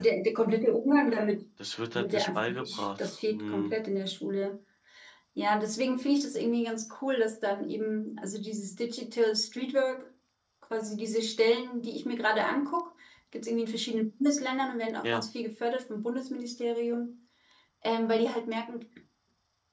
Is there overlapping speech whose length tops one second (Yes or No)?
Yes